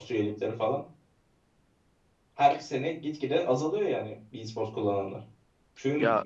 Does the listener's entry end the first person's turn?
No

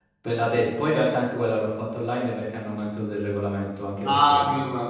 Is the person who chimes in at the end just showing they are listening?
No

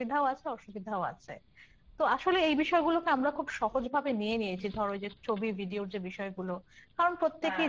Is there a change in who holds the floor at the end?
No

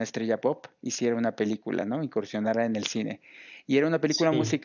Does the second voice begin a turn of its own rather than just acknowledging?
No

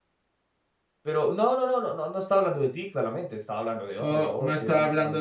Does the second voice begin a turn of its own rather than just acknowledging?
Yes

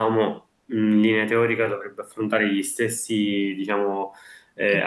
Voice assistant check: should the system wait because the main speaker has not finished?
Yes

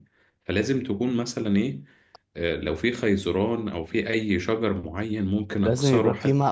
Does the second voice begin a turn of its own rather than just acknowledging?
Yes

